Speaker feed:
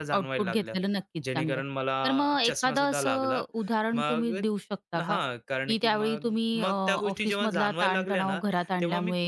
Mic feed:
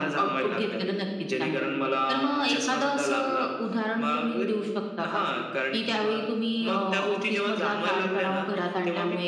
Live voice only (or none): none